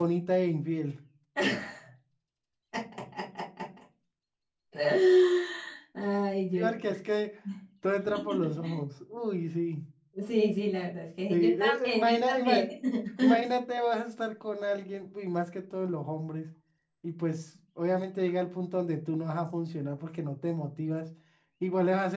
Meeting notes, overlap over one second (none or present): present